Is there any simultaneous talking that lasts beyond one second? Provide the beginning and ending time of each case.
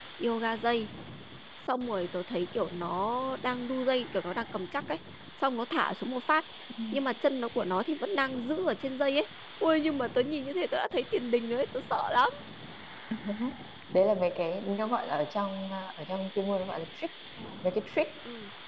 none

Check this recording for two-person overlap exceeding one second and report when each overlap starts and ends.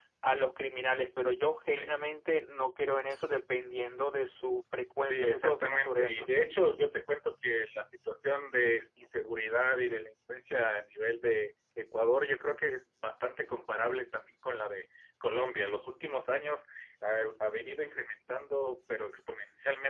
5.0-6.3

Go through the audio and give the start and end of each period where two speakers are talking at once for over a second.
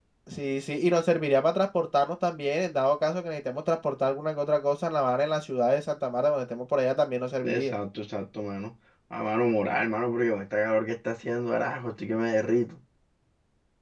none

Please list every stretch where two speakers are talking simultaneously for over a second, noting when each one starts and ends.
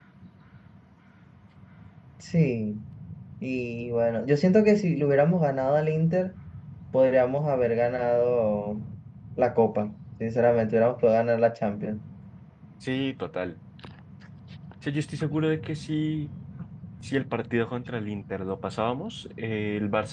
none

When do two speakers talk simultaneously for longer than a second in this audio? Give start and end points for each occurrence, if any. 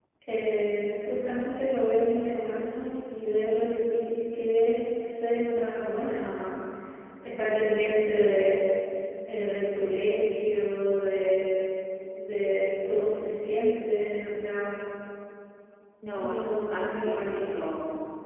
16.2-17.5

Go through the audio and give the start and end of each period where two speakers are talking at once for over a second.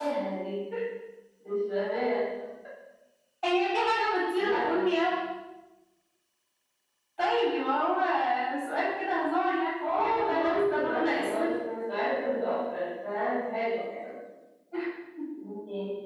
10.0-11.4

